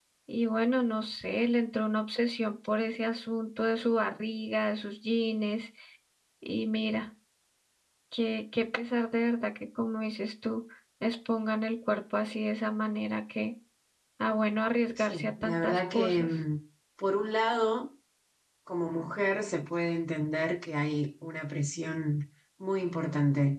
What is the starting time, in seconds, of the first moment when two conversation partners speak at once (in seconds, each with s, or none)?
15.0 s